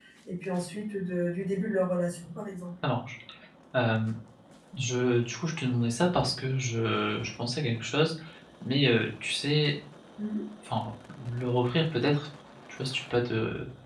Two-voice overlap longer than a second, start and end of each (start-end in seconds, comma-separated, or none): none